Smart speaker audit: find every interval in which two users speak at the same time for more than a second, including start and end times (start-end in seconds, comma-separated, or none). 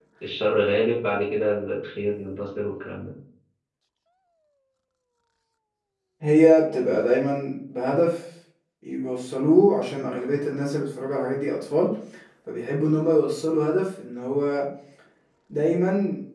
none